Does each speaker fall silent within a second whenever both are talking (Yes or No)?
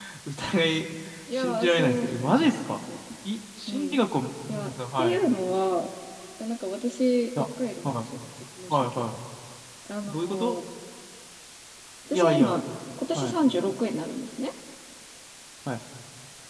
No